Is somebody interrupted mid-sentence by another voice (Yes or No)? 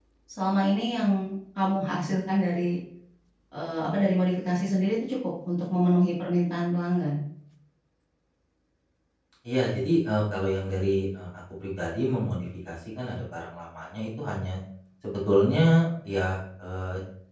No